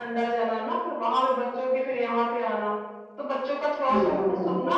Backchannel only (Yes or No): Yes